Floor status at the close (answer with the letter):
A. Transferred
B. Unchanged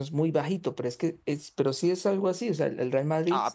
A